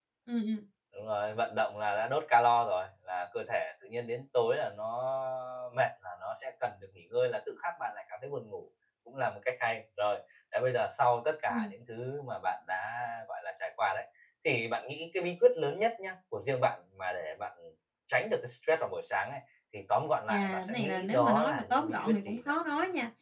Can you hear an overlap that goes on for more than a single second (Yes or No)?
Yes